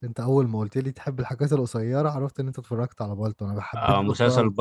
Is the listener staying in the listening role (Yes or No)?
No